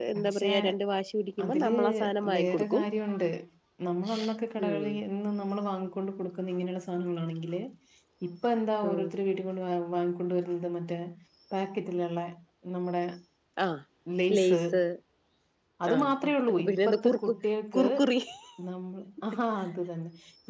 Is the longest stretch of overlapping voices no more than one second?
No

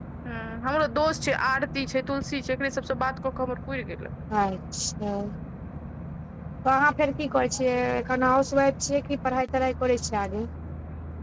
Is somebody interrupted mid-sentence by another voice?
No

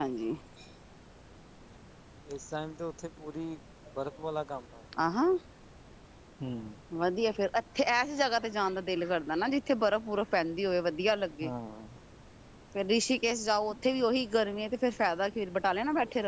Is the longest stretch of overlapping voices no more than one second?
Yes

